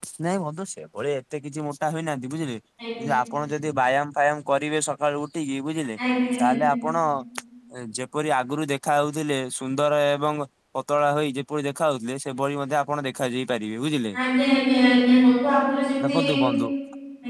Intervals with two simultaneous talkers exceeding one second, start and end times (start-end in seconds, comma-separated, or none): none